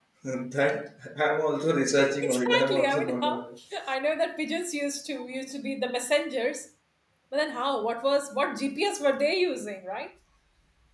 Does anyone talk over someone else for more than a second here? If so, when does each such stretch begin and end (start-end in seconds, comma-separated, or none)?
2.2-3.5